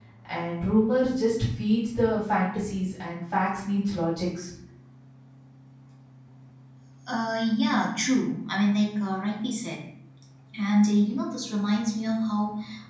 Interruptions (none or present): none